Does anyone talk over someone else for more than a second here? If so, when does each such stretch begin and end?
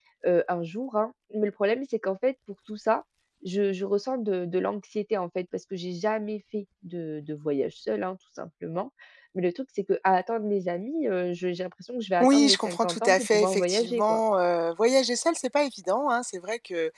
12.2-14.2

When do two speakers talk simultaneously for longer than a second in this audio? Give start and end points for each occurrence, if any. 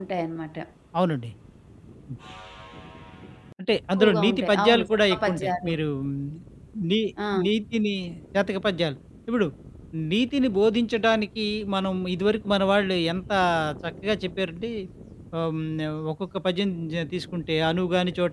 4.0-5.7

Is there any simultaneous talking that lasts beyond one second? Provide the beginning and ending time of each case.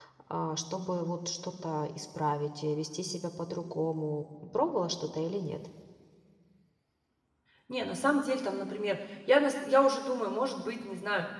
none

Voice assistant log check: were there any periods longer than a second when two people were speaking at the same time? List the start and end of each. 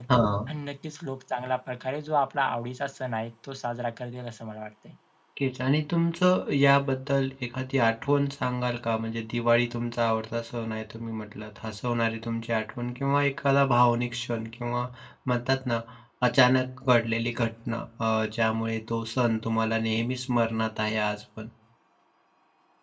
none

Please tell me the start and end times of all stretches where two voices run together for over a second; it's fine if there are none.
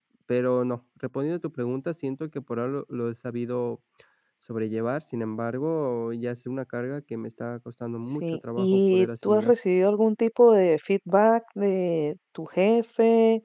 8.2-9.5

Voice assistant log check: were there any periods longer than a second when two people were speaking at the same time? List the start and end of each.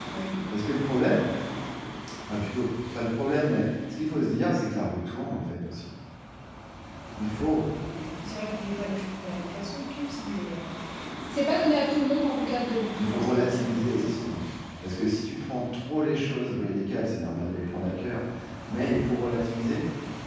13.0-14.3

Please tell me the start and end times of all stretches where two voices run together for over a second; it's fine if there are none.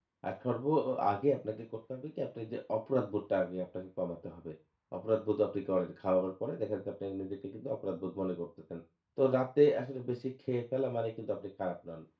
none

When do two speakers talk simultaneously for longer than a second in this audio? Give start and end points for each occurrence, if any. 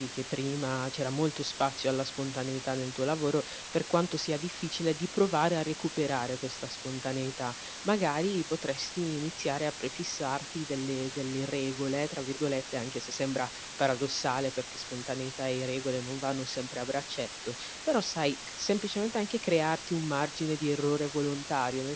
none

